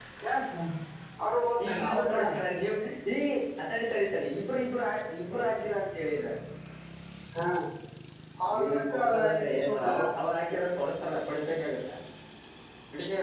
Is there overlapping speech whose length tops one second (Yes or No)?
Yes